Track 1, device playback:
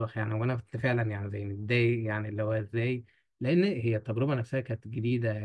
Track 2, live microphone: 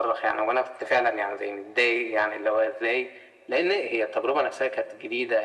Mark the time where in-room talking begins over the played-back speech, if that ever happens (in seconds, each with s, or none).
none